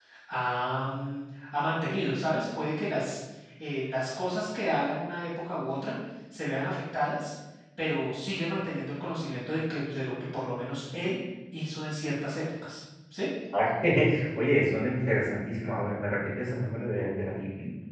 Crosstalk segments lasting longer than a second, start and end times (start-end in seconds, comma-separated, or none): none